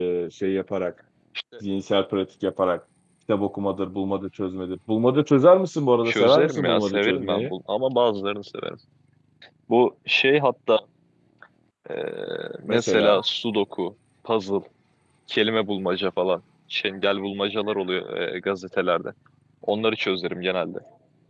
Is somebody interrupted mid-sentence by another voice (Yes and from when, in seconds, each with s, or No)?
Yes, from 6.0 s